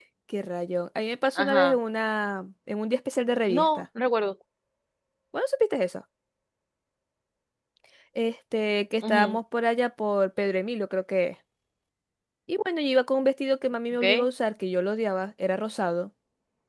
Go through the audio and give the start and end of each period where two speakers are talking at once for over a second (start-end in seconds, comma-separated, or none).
none